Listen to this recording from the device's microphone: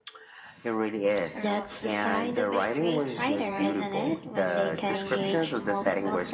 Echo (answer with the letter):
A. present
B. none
A